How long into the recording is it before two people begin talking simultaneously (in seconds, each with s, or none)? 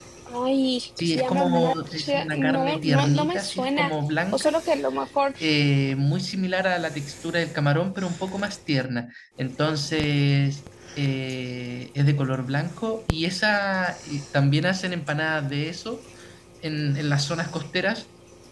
1.0 s